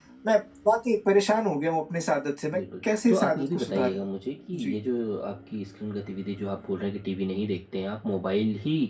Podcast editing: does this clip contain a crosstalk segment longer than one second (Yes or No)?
Yes